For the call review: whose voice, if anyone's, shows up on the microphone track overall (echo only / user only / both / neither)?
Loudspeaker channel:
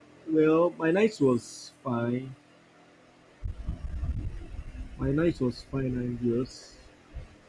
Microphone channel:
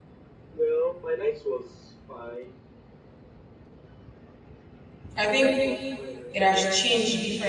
both